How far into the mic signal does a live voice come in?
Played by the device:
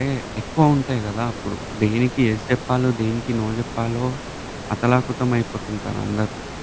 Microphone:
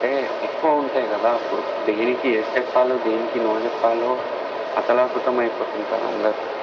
none

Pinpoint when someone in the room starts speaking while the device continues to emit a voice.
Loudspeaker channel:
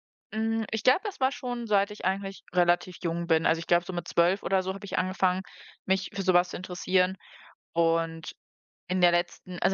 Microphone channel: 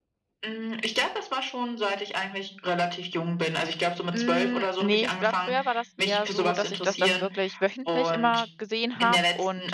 4.1 s

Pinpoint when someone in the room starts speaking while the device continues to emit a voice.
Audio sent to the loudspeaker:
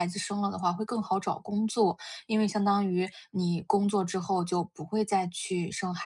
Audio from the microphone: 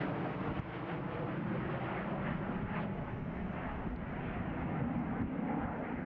none

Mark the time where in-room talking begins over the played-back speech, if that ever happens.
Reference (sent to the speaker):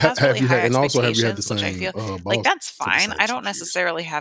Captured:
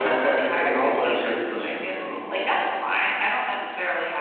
none

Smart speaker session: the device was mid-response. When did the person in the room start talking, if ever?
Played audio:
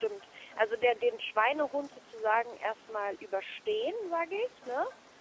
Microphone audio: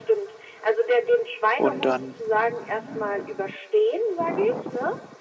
1.6 s

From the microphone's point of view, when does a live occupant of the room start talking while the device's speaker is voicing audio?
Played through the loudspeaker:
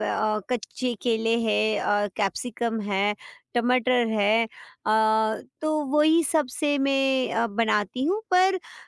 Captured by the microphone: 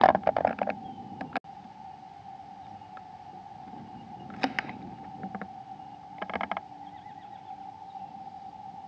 none

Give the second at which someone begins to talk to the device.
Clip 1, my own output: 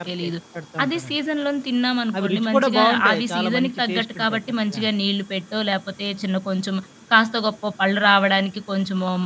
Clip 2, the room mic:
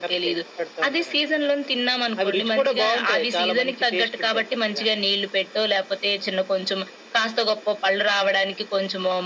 none

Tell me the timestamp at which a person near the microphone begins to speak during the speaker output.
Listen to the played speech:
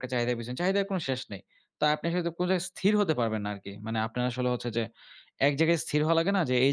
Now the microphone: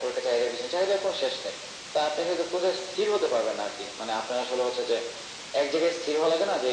none

